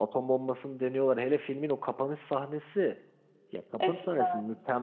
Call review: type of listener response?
listening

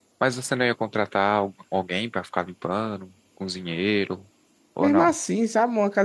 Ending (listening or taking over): taking over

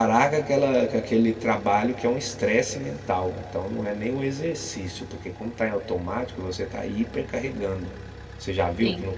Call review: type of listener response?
listening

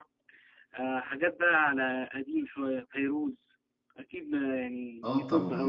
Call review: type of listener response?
taking over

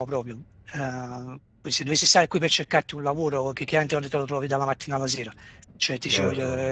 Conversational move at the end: taking over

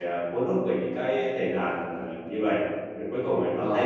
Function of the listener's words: taking over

